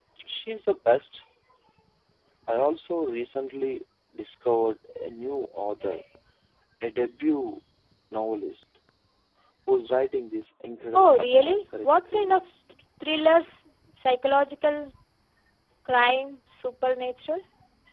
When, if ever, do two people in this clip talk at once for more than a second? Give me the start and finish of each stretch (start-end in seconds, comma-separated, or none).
10.9-12.4